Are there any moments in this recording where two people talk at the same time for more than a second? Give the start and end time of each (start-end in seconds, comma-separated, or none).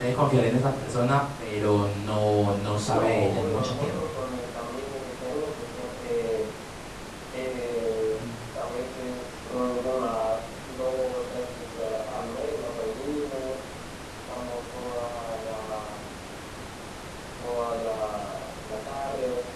2.8-4.2